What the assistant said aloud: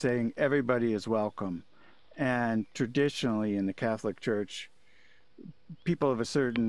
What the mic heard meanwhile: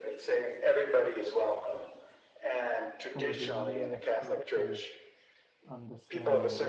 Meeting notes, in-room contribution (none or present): present